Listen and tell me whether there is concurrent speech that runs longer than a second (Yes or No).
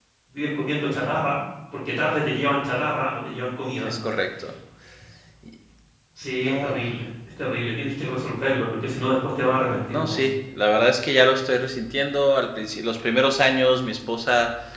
No